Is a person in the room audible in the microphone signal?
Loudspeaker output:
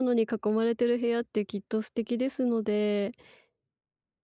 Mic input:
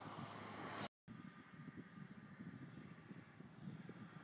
No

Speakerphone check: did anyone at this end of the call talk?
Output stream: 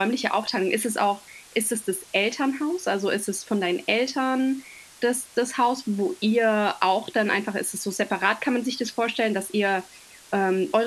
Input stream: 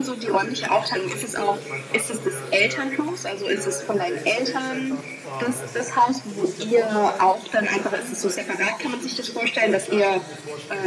Yes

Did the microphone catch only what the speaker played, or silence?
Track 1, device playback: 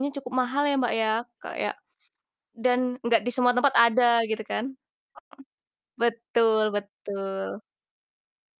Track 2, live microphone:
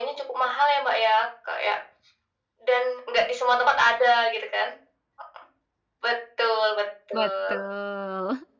No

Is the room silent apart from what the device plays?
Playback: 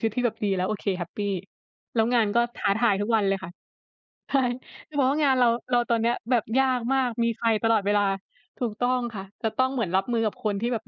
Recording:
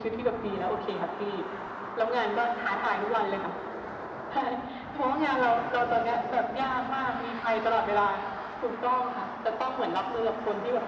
Yes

